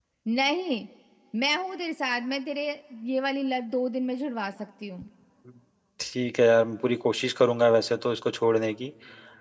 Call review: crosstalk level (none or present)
none